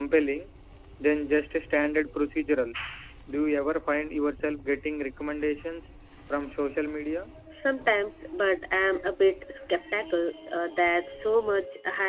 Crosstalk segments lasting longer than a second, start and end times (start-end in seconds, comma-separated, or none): none